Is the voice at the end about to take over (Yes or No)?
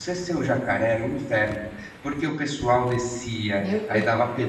No